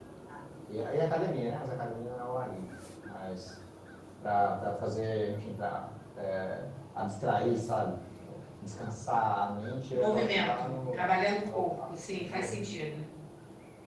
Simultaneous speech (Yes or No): Yes